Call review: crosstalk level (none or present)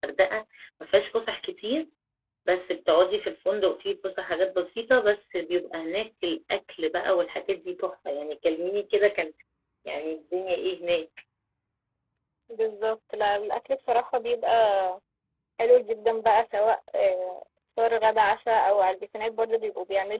none